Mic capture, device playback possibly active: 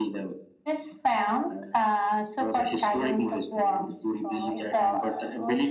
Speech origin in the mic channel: both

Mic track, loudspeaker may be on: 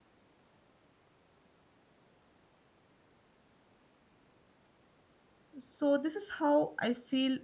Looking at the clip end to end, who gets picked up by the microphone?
user only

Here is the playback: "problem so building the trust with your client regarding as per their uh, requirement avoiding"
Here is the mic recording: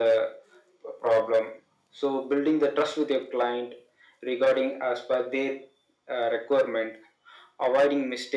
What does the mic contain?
echo only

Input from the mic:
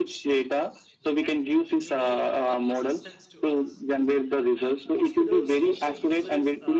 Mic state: both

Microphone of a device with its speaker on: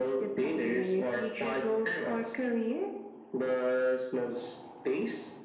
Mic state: echo only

